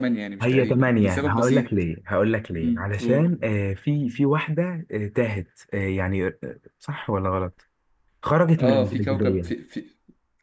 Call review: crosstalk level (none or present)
present